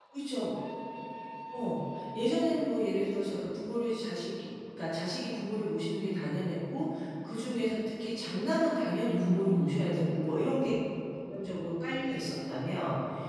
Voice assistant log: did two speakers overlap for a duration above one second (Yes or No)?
Yes